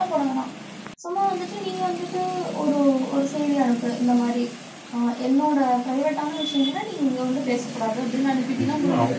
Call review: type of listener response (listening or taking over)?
taking over